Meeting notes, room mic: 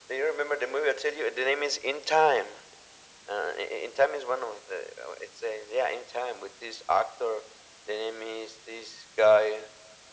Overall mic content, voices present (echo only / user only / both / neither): echo only